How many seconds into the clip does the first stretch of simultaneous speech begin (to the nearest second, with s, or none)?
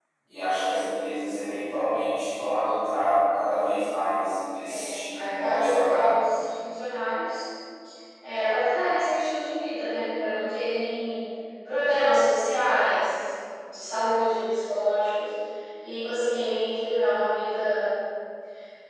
5 s